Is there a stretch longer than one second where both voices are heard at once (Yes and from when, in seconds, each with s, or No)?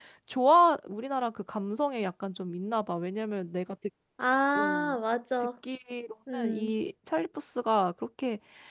No